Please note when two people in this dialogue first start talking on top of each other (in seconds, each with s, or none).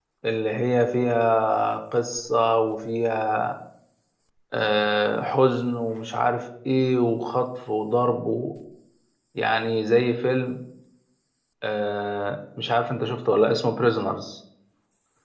none